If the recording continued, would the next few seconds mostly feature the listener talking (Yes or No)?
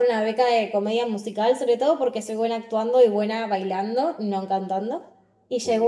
No